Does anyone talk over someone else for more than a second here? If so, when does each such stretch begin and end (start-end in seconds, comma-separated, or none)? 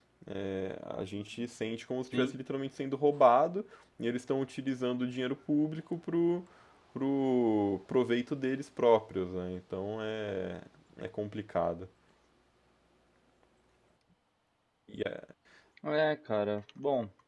none